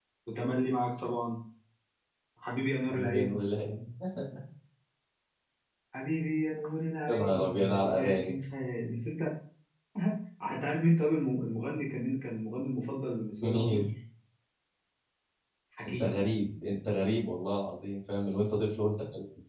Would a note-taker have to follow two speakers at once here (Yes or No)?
Yes